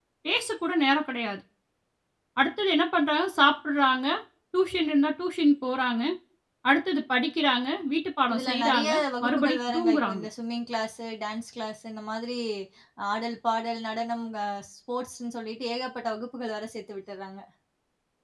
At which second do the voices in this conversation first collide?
8.3 s

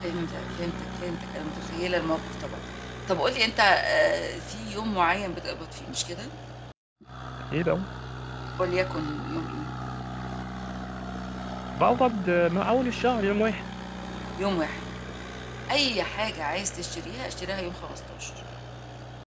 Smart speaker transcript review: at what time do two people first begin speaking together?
none

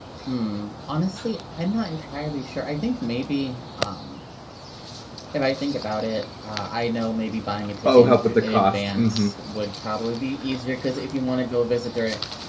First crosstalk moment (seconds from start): 7.8 s

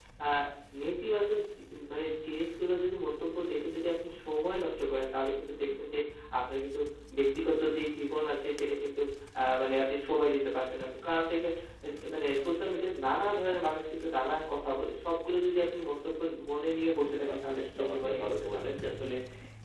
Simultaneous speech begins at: 17.1 s

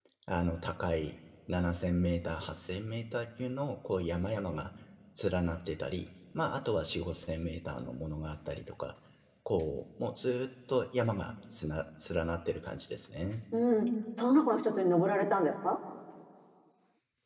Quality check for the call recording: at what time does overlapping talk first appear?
none

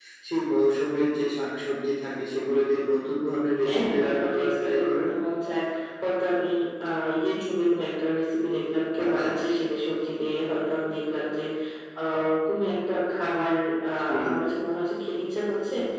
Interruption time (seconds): 3.6 s

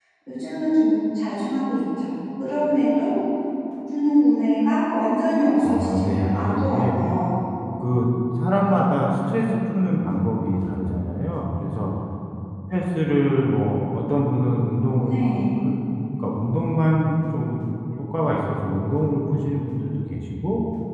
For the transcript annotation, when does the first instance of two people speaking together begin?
5.7 s

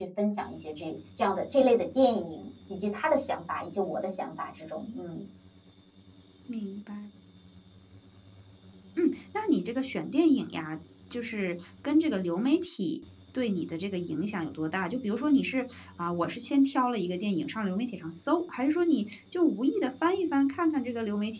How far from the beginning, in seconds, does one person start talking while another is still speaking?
none

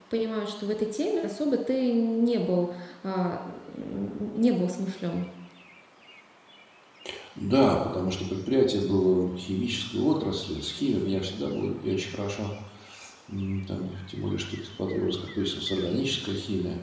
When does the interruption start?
none

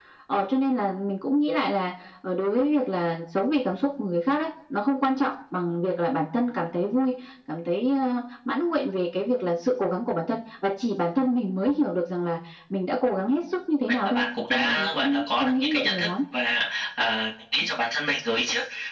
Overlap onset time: 13.9 s

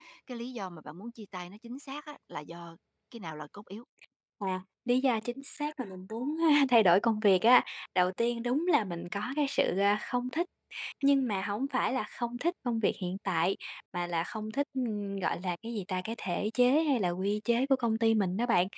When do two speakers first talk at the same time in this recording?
none

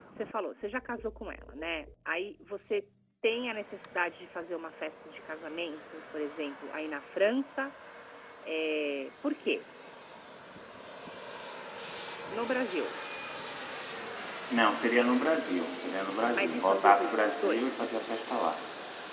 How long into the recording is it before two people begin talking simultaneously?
16.3 s

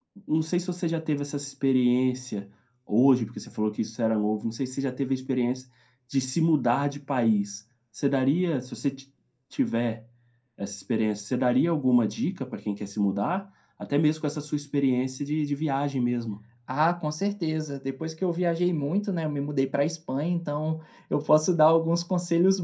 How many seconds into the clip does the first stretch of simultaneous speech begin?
none

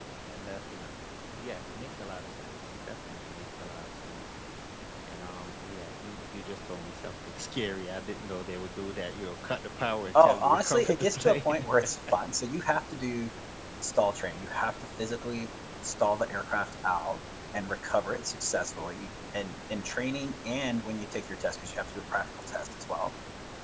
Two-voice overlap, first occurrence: 10.1 s

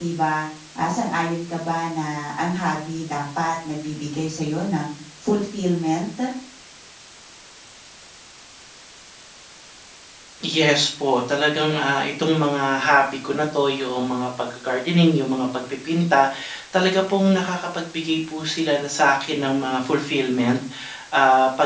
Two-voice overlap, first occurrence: none

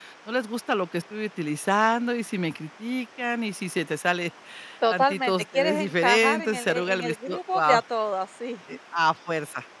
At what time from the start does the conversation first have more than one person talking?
4.9 s

